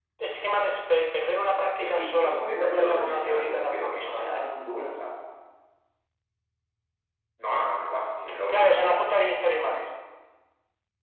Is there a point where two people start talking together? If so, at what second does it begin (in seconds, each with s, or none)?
1.8 s